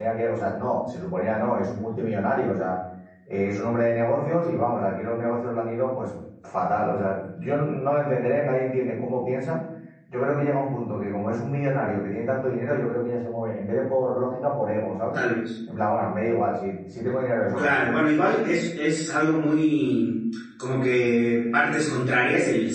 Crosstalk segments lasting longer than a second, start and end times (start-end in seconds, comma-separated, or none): none